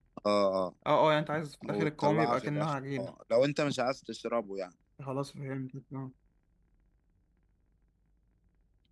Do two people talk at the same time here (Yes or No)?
Yes